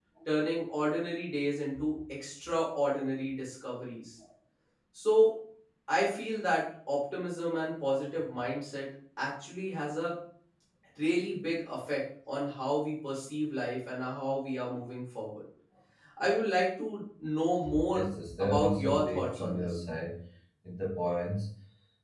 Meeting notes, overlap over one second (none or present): present